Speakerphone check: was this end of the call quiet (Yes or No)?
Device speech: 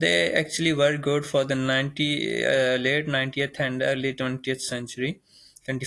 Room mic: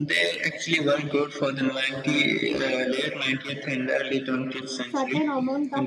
No